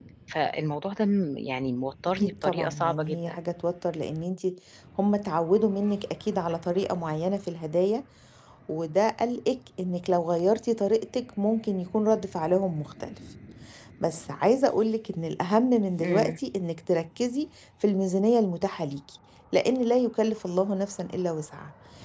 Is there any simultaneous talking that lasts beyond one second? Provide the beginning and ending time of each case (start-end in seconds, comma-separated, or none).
2.2-3.4